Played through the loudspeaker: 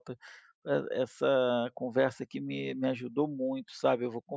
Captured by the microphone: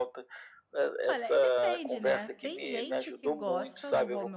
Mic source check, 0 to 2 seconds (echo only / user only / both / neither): both